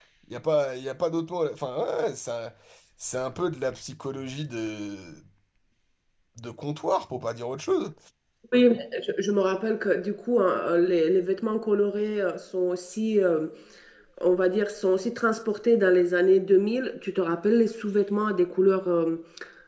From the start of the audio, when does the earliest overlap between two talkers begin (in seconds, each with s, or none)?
none